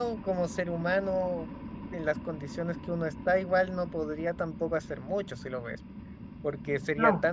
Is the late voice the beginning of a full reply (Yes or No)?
No